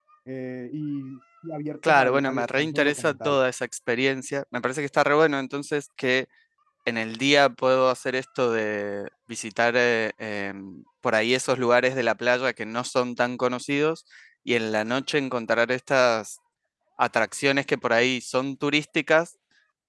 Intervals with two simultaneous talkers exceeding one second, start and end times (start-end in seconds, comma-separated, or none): 1.9-3.4